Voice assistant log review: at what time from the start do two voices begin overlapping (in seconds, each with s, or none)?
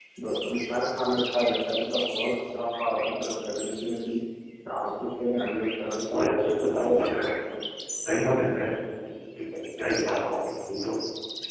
6.1 s